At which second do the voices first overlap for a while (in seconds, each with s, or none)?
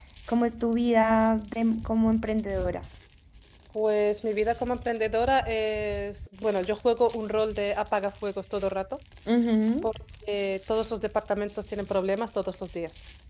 none